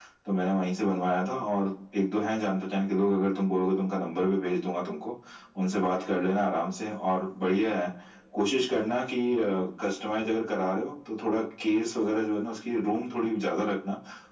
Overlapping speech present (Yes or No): No